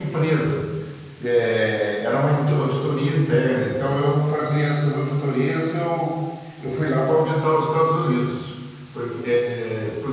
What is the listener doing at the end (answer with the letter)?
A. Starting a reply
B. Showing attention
B